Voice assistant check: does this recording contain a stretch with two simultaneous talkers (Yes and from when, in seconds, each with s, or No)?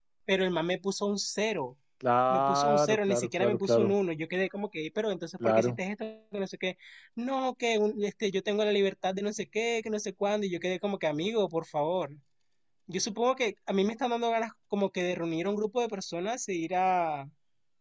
Yes, from 2.3 s